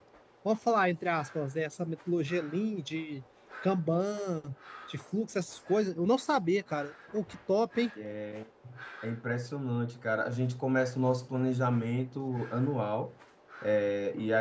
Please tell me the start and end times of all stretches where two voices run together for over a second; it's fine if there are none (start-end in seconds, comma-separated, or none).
none